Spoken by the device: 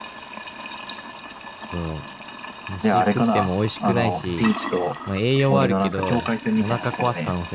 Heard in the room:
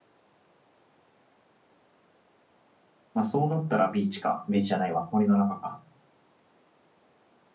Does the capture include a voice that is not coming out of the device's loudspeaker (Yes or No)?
Yes